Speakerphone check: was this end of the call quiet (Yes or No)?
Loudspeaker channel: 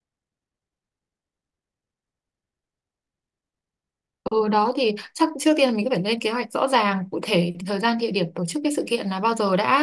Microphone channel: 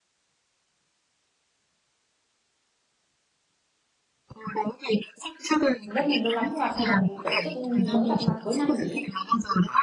No